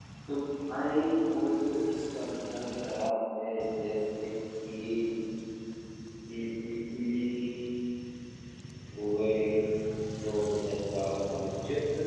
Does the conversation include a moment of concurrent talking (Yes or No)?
No